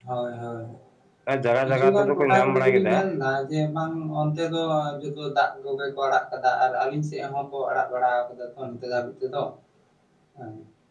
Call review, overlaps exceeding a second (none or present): present